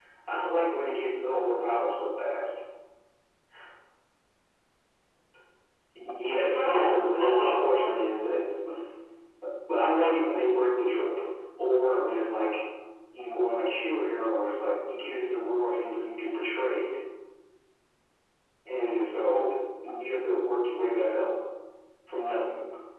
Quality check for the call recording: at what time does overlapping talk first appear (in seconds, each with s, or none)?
6.4 s